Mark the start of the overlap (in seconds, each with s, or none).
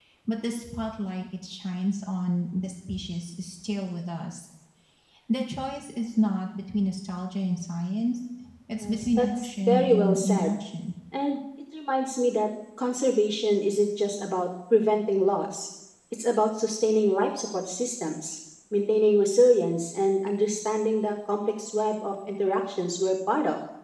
8.8 s